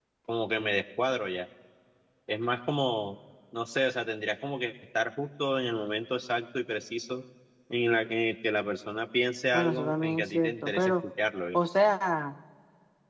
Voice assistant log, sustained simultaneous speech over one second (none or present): present